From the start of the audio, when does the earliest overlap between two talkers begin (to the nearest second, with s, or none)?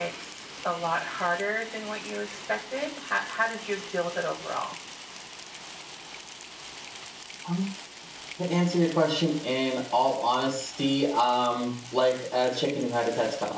none